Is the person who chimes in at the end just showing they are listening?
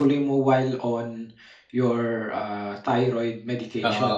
No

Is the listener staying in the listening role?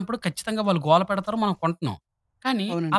Yes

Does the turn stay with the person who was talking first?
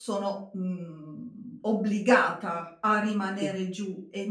Yes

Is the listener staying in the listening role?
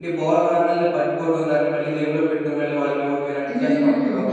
No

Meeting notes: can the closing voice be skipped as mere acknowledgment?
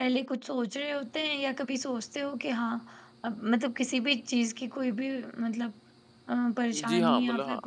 No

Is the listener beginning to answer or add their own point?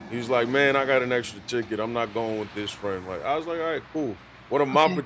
No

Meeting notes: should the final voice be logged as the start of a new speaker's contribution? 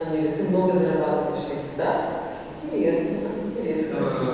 Yes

